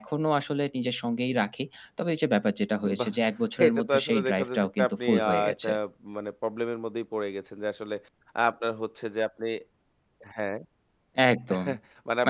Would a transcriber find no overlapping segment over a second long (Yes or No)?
No